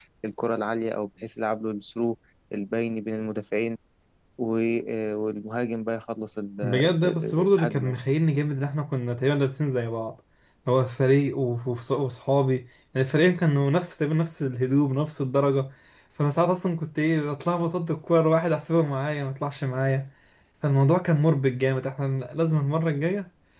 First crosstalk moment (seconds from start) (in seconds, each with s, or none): 6.6 s